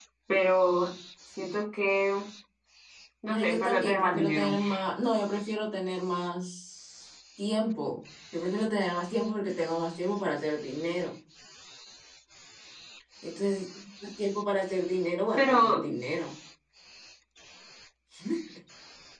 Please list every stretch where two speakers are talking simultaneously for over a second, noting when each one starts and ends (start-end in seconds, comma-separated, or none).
3.3-4.5